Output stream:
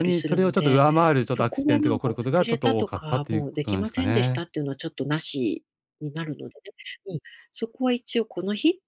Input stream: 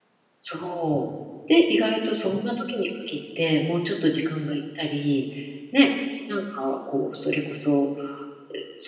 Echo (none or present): none